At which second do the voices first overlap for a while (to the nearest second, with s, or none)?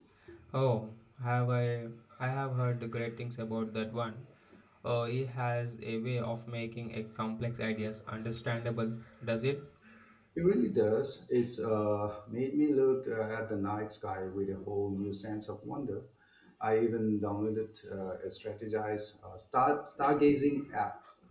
none